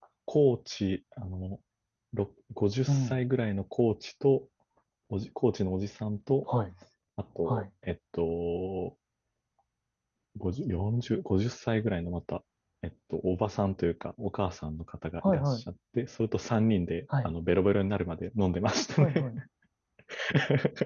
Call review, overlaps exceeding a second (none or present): none